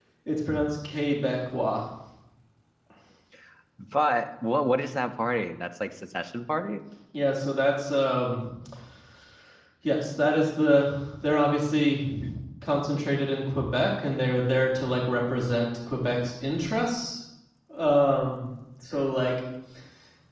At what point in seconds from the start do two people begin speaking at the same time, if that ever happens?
none

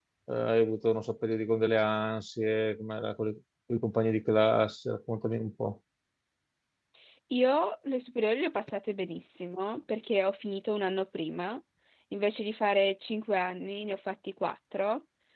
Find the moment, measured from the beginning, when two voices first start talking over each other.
none

